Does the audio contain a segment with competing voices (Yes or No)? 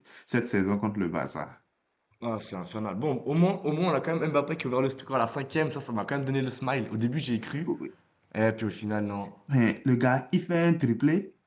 No